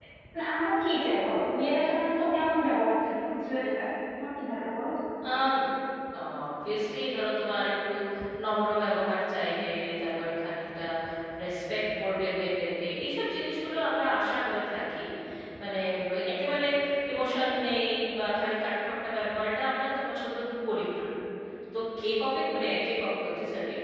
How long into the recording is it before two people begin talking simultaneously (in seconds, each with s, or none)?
none